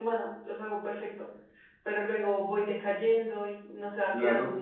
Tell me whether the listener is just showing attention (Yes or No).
No